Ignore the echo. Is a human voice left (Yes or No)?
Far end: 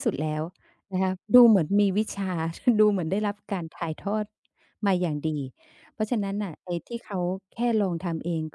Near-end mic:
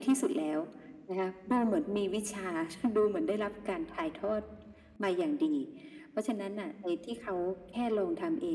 No